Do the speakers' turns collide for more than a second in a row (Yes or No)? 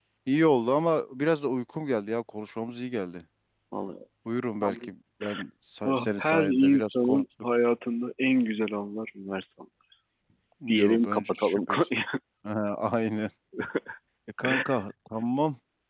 Yes